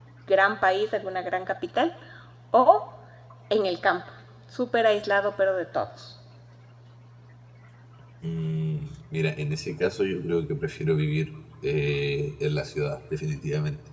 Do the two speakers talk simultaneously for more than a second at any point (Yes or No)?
No